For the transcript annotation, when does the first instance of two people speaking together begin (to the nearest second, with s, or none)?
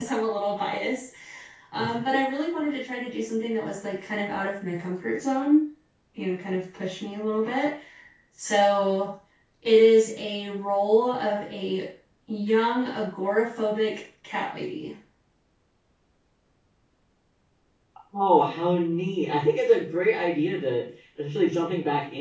none